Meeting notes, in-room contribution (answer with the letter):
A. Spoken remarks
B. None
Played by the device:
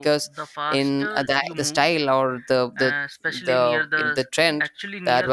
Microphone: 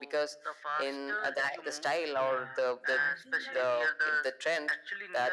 A